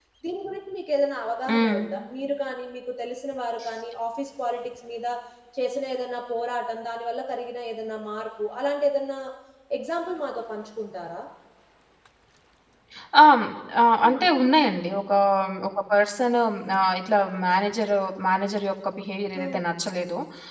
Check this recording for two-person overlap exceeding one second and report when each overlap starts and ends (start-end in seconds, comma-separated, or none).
none